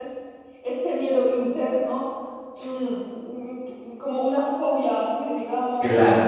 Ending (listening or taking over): taking over